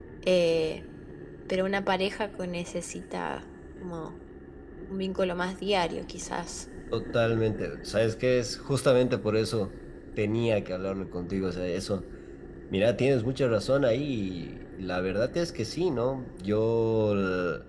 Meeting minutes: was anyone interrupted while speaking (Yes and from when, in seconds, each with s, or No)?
No